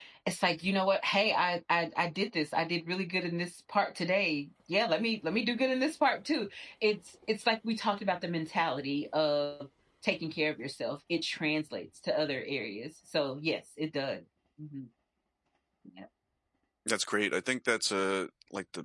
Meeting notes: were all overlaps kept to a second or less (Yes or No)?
Yes